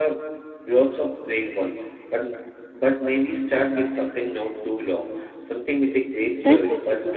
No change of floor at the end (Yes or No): No